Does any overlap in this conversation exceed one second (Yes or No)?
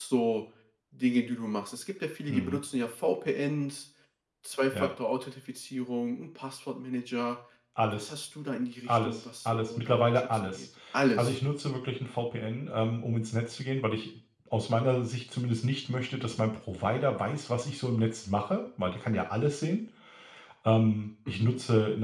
Yes